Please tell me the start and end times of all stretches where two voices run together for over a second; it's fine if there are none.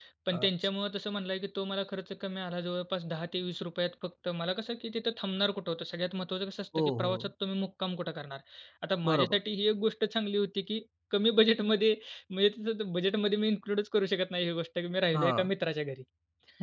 none

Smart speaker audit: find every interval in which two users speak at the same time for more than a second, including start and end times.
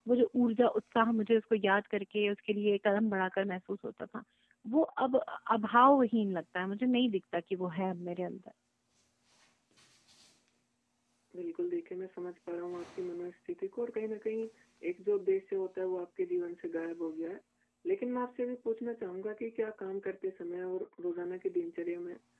none

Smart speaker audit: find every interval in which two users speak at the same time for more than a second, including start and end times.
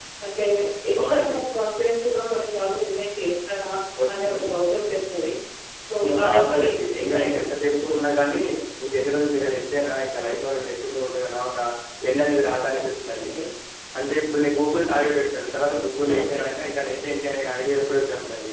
6.0-7.5

